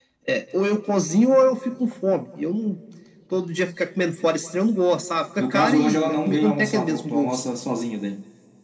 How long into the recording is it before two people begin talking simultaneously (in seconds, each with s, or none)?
5.4 s